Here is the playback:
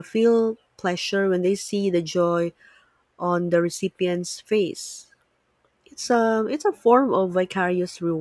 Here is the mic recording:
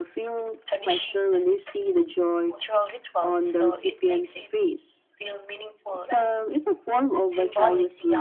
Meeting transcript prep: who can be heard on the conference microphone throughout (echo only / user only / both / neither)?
both